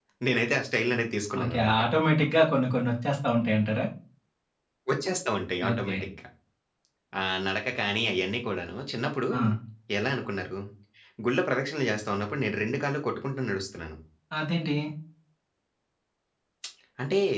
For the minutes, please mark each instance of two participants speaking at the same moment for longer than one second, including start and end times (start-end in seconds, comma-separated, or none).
none